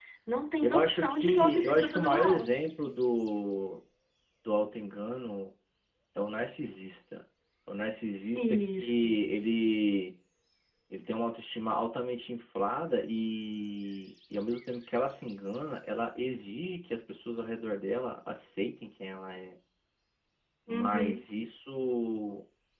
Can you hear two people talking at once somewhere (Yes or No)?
Yes